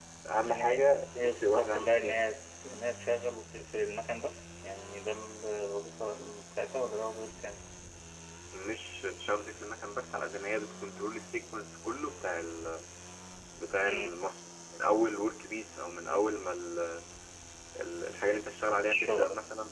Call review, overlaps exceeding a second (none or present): present